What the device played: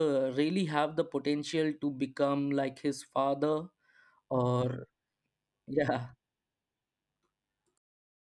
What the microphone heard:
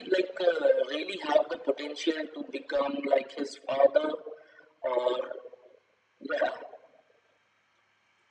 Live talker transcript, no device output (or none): none